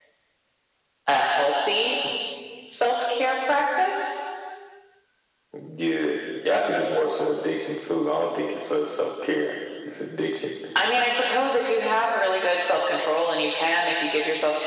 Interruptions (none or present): none